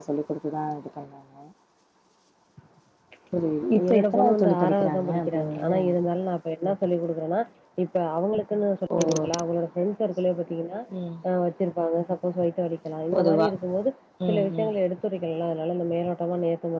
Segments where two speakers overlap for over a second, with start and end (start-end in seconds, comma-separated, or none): 3.9-5.7